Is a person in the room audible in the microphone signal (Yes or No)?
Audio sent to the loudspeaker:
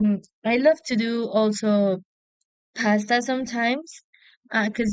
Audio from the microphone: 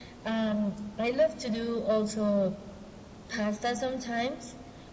No